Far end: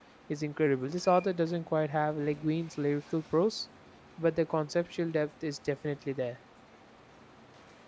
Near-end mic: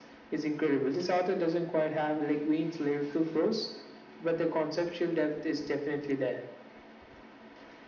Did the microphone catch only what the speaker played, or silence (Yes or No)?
Yes